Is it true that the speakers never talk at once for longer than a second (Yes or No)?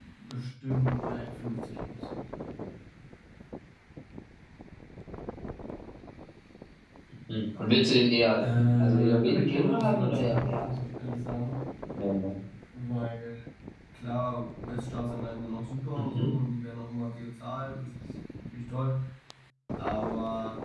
No